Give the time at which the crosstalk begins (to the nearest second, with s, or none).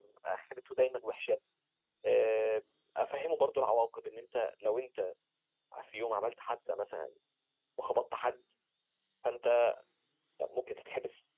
none